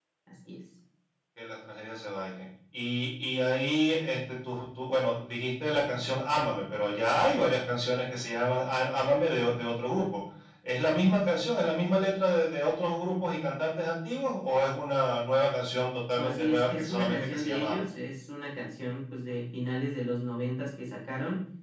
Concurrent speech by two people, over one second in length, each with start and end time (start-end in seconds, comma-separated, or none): 16.2-17.8